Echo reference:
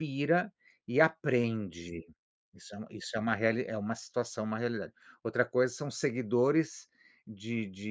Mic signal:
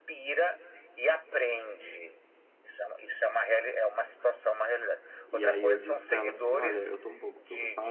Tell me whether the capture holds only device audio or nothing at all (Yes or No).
No